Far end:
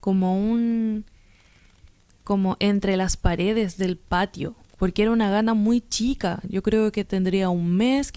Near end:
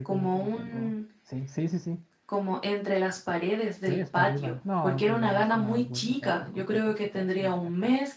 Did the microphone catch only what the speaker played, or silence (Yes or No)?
No